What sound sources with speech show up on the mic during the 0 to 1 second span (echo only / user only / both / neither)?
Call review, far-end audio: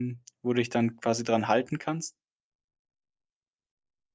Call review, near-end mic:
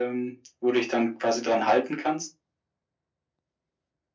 echo only